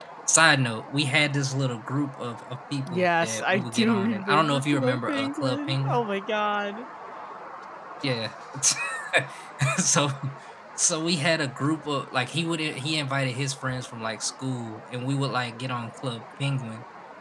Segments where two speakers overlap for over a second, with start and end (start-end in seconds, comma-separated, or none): 2.9-6.1